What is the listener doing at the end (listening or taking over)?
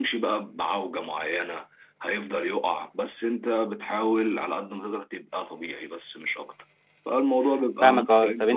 taking over